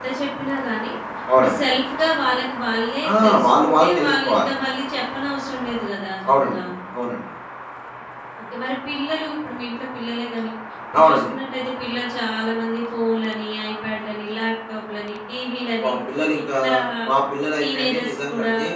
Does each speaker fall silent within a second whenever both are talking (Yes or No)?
No